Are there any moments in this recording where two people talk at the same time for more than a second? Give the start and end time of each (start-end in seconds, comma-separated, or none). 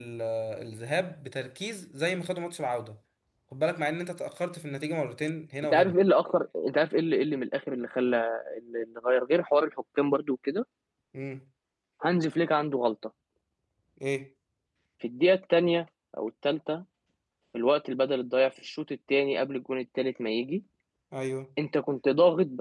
none